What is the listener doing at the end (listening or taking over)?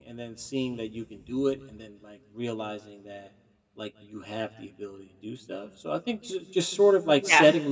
listening